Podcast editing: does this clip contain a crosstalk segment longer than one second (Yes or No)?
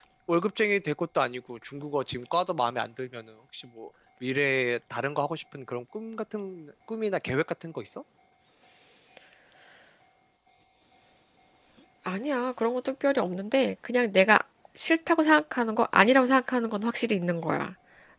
No